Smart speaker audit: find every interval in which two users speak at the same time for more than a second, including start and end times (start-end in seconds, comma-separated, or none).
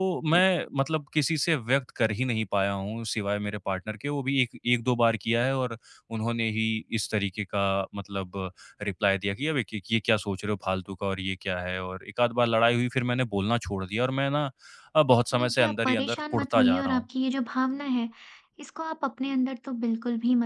15.3-17.0